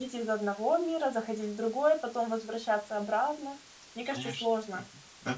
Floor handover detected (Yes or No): Yes